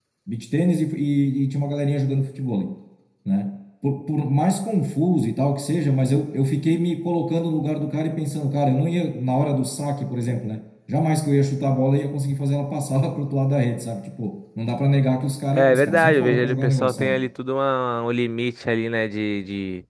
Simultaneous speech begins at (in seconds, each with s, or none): 15.5 s